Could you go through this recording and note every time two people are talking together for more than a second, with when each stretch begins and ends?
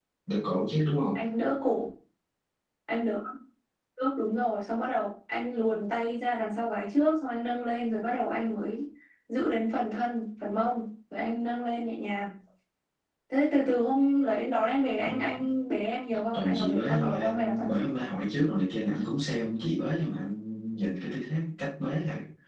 16.3-17.8

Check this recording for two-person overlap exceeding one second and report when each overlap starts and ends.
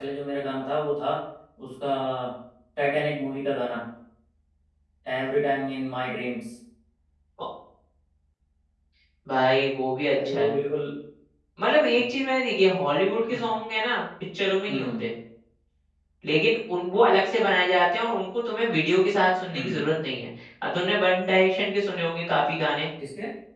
none

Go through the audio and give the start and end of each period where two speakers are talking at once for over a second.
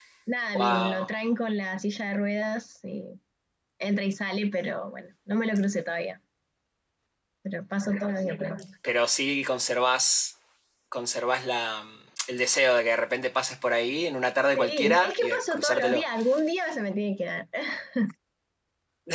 14.6-16.1

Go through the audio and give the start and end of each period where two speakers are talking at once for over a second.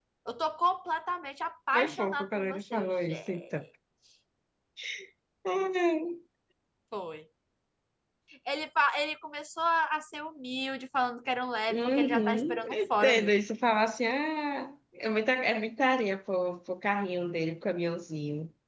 1.7-3.4, 11.7-13.3

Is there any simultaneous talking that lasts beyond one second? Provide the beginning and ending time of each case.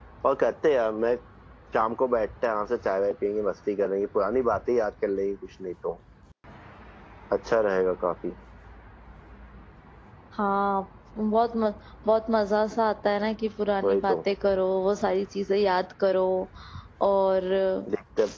none

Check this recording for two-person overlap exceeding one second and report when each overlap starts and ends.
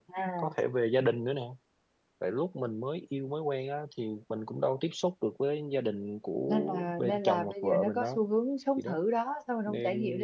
6.5-8.2

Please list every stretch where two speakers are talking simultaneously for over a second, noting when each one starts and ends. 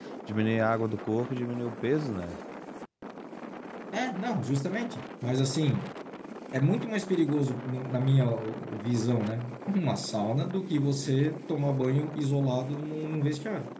none

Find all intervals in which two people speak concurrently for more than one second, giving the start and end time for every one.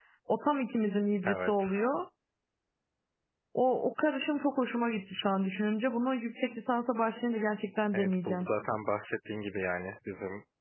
none

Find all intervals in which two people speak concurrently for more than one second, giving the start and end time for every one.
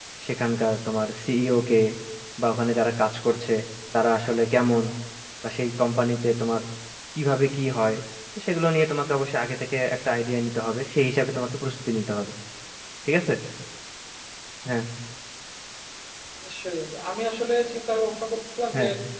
none

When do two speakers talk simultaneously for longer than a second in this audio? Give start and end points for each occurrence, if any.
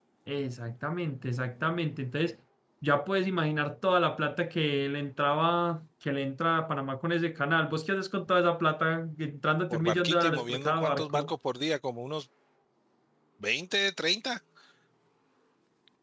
9.7-11.3

